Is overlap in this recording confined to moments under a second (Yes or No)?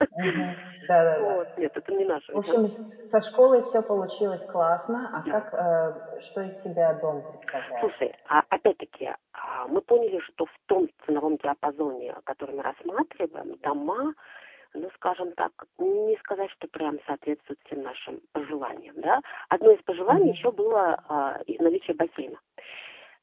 Yes